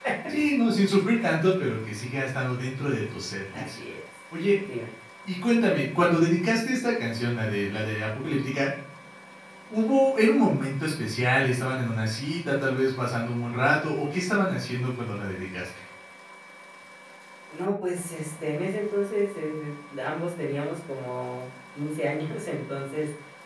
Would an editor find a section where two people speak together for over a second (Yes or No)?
No